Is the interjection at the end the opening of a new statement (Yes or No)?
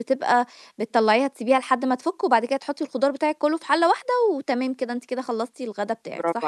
Yes